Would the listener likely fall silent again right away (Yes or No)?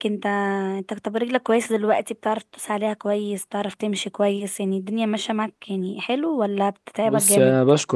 No